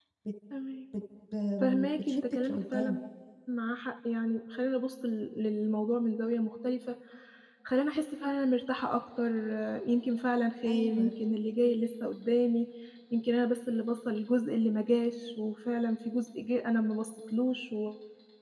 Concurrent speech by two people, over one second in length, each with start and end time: 1.6-3.0

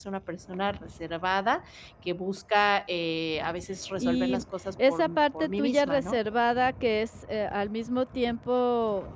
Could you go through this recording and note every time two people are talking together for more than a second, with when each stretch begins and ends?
4.9-6.2

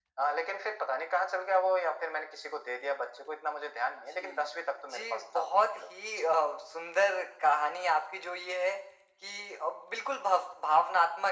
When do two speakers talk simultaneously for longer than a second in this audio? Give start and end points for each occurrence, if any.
4.9-6.3

